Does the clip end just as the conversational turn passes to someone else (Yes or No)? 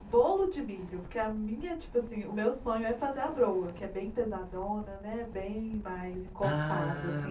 Yes